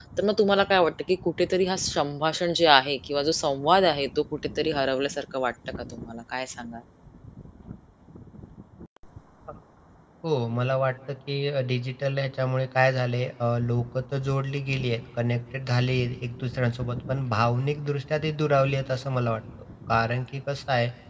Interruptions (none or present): none